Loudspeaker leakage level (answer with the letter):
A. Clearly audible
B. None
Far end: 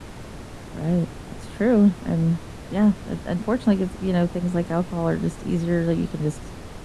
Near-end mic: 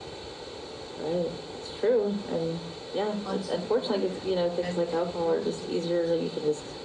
A